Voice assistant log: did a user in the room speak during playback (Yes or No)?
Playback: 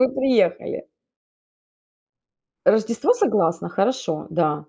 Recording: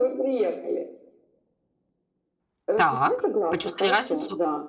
Yes